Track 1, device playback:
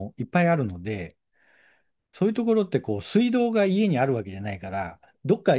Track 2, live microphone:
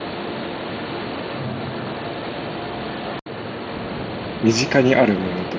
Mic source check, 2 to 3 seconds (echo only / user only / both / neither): neither